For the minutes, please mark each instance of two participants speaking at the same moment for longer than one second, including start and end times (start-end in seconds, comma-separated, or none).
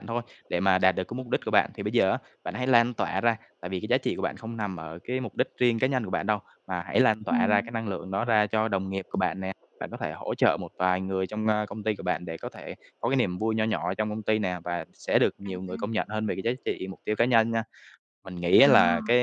none